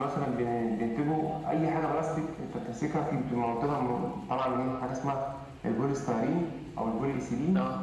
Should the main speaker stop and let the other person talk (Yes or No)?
No